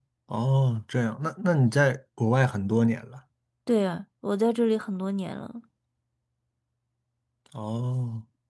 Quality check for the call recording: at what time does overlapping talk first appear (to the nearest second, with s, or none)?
none